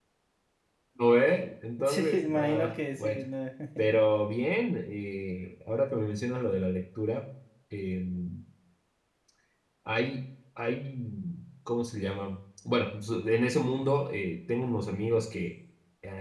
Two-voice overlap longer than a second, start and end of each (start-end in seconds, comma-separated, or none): 1.8-3.2